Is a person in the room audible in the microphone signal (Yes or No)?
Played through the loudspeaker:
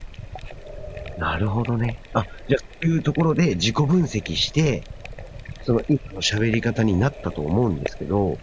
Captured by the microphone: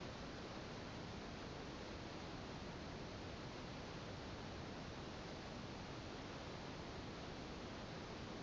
No